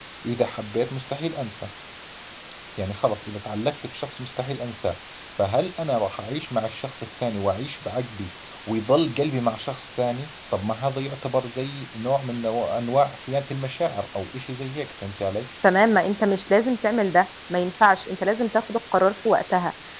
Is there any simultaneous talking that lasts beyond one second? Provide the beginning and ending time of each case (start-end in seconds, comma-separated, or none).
none